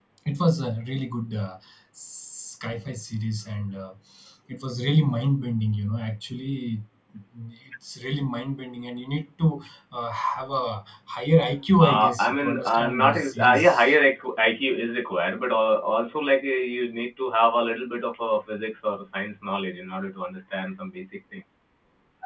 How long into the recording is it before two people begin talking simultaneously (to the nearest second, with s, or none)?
12 s